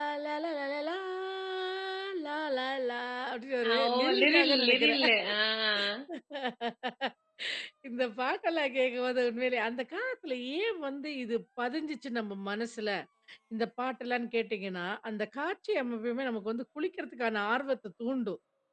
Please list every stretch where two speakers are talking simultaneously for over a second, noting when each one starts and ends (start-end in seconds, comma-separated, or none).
3.7-5.0